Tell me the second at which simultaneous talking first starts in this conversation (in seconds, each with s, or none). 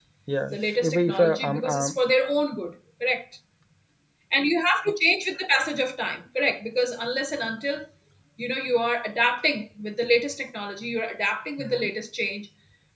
0.5 s